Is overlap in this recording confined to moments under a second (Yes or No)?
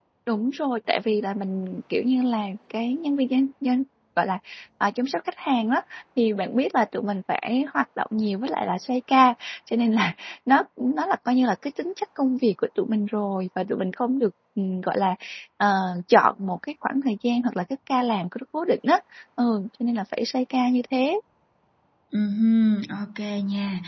Yes